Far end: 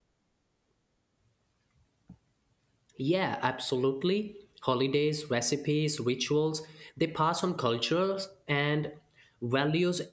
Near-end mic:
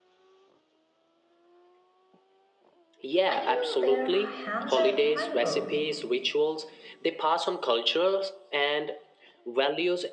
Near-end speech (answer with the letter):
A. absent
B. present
B